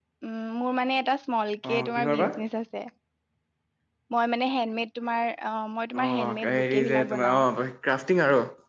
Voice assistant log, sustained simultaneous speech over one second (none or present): present